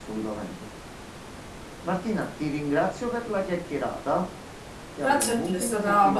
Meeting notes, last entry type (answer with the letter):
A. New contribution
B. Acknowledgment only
A